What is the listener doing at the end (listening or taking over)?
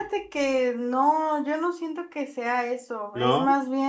listening